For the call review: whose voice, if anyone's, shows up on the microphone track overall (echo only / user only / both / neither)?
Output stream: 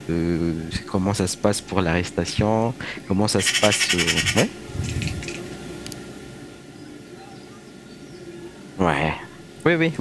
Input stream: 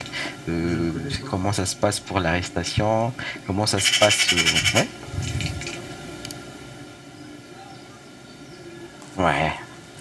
both